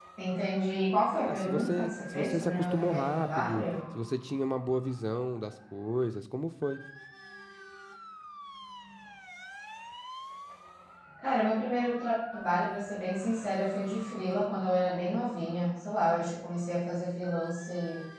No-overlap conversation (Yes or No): No